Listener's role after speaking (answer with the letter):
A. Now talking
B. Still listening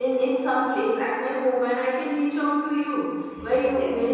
B